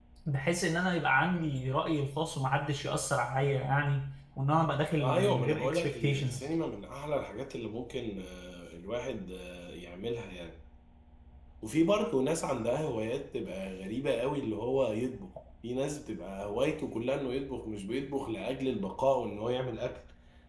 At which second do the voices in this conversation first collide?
5 s

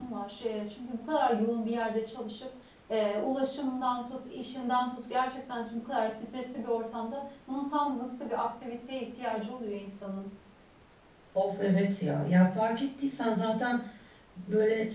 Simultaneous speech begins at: none

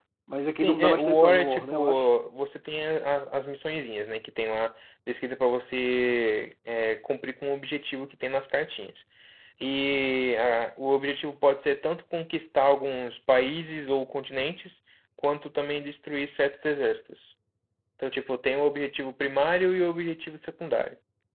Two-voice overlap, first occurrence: 1 s

